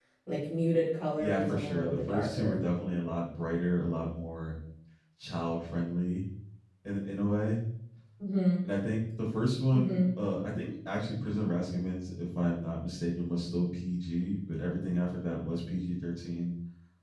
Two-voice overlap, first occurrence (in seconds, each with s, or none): 1.2 s